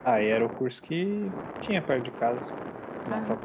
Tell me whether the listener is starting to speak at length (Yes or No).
No